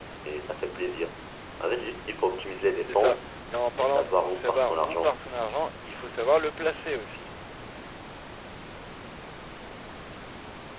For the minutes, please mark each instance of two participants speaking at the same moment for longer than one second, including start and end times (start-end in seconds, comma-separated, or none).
3.8-5.1